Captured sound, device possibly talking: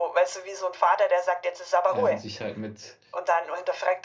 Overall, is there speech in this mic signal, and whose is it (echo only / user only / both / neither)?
both